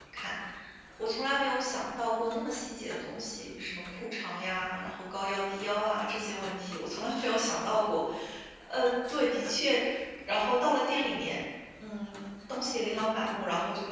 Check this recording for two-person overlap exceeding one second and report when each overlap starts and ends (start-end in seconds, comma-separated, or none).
none